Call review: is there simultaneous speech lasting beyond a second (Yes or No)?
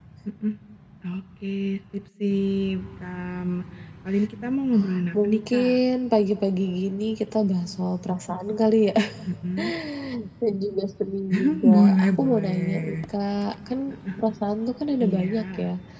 Yes